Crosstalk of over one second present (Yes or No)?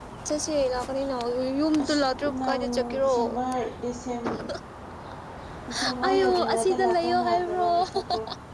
Yes